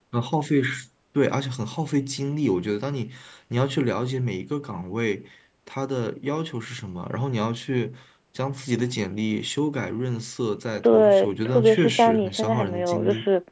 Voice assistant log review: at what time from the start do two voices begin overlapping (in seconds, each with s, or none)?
10.8 s